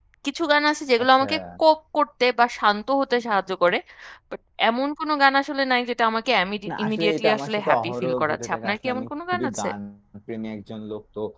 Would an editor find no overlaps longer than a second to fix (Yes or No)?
No